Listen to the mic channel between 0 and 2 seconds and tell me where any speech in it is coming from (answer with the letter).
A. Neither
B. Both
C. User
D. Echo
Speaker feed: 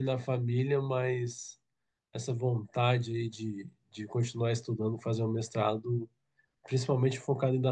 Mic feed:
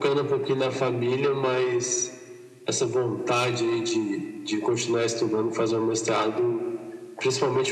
D